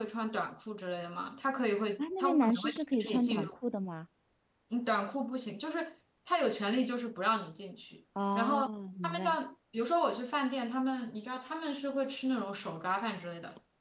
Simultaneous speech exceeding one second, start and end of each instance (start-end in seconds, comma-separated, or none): 2.0-3.5